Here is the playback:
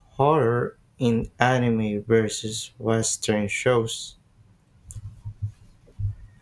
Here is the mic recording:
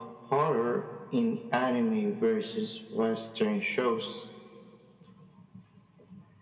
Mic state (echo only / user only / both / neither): echo only